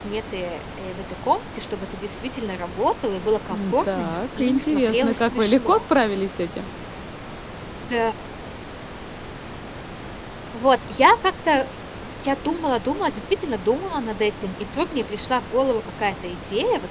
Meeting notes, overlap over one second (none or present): present